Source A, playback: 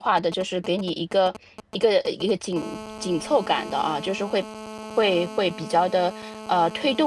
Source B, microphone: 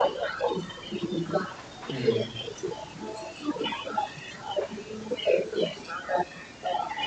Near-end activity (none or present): present